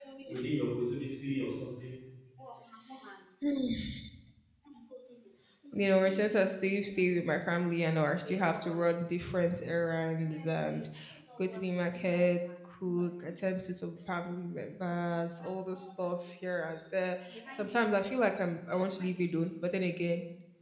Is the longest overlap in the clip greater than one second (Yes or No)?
No